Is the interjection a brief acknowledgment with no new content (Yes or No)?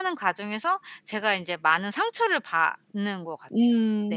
No